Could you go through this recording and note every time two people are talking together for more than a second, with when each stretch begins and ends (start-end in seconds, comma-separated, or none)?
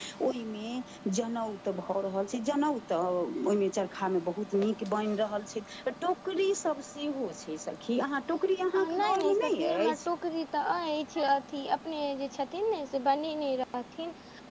8.8-10.0